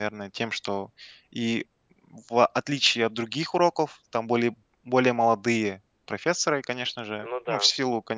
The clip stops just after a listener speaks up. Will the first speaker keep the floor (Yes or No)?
Yes